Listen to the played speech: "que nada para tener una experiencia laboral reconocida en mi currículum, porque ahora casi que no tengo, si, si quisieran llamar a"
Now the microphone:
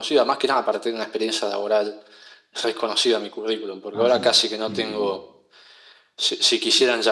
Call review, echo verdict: present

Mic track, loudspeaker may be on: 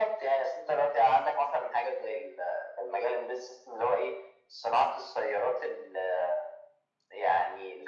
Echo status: present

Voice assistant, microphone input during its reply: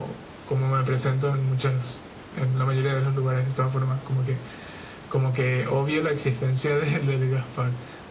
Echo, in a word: present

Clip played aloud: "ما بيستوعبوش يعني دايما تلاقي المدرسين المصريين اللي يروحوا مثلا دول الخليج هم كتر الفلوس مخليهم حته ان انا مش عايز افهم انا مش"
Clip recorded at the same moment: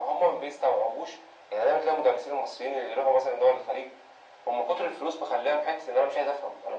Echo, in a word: present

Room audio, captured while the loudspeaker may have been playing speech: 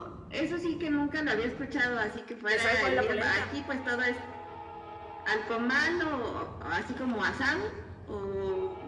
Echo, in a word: present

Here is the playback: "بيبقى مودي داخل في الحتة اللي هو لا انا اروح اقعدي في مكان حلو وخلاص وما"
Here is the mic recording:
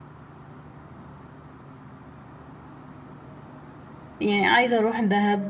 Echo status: none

